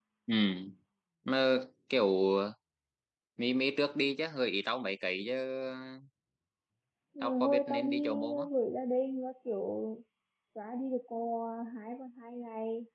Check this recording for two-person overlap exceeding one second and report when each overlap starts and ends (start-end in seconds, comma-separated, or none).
7.2-8.5